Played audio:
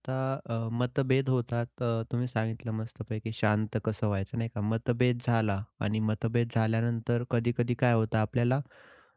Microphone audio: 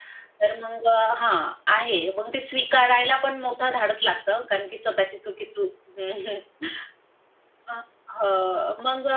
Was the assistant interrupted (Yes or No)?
Yes